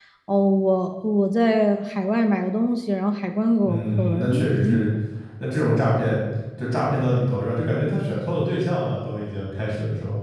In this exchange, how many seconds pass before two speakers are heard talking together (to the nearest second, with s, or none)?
4 s